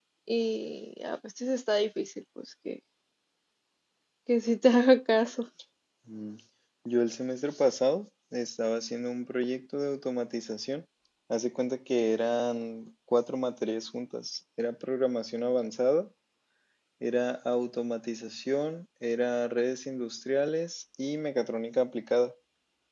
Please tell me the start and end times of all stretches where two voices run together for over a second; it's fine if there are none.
none

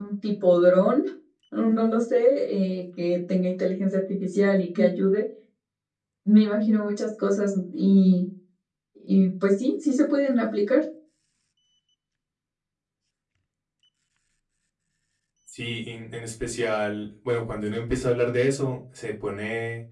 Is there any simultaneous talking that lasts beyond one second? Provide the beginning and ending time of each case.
none

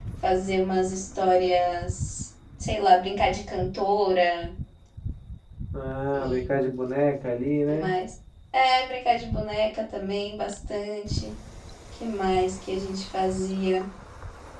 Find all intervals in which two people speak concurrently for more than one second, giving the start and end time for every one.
none

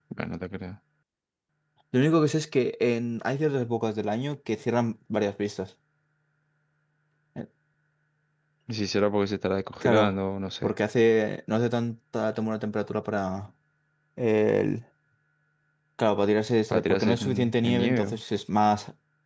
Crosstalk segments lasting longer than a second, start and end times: 16.7-18.2

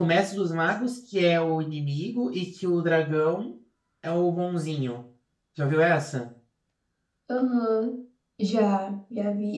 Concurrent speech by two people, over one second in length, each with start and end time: none

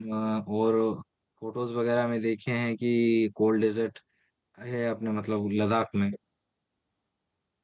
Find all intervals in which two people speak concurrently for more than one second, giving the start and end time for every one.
none

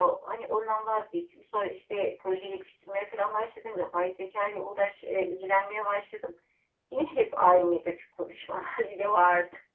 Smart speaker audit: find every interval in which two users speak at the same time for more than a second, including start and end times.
none

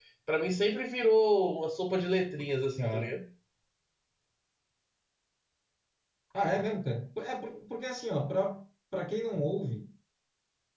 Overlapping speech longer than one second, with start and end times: none

